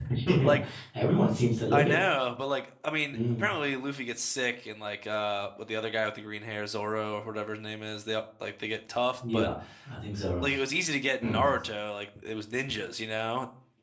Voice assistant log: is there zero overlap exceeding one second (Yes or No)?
Yes